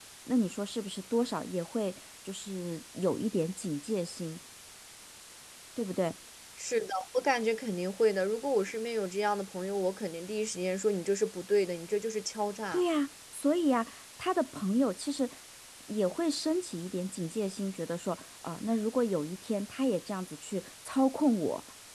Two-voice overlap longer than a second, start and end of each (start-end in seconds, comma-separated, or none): none